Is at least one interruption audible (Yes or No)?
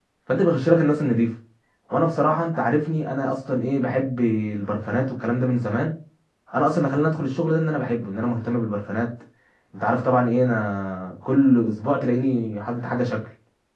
No